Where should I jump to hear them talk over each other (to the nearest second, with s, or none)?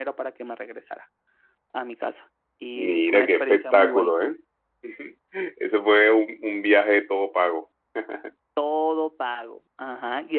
3 s